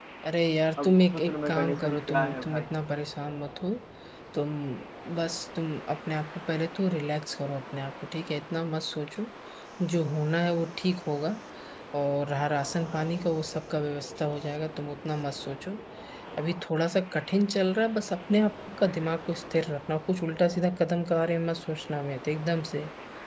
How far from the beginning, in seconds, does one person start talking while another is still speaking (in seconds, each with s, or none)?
0.8 s